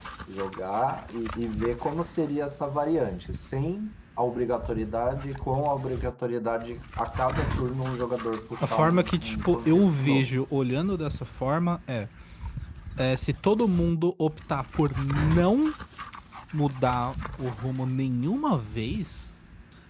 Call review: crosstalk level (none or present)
present